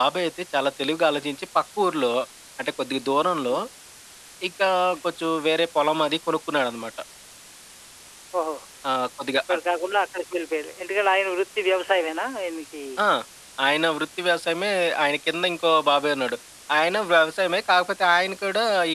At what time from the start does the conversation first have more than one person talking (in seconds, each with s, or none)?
none